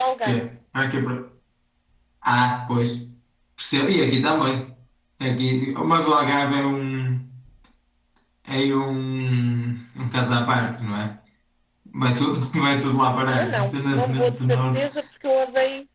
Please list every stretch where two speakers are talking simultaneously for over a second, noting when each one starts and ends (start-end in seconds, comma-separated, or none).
13.3-14.9